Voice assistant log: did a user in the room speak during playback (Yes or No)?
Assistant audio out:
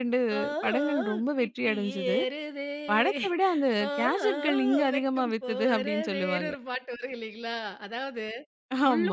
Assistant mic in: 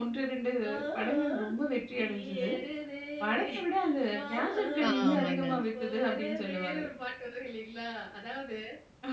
Yes